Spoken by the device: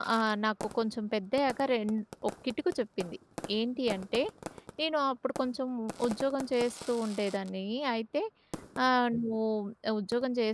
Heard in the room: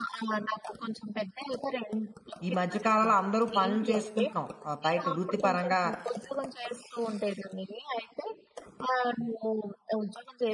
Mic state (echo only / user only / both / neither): both